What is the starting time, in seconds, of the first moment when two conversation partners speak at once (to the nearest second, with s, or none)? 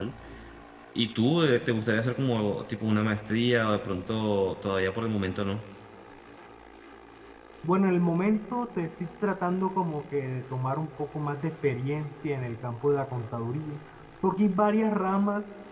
none